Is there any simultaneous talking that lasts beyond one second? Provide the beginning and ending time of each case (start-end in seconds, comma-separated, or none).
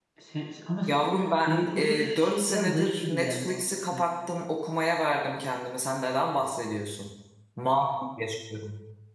1.4-4.1